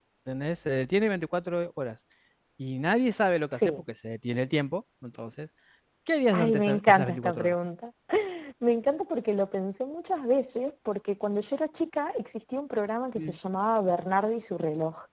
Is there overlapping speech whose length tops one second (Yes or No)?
Yes